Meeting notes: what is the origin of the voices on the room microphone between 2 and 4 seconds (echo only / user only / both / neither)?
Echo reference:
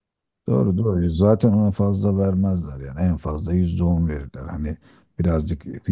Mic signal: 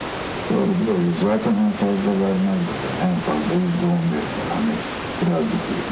echo only